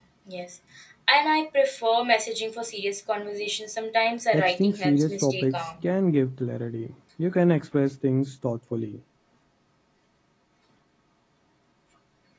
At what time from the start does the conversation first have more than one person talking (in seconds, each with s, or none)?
4.3 s